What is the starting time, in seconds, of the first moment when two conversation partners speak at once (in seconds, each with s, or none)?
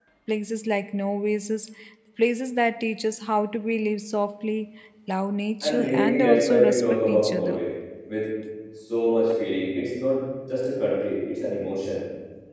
5.6 s